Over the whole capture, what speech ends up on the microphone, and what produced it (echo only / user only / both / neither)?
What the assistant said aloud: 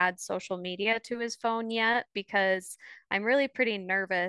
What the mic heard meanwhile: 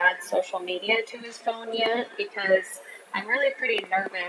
echo only